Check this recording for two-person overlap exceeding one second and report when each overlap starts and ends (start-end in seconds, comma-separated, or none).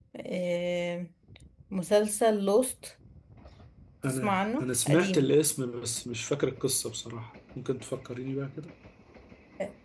4.0-5.3